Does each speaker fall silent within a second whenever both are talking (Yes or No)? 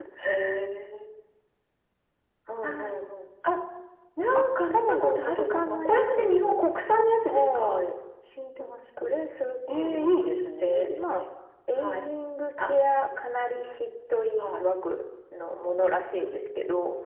No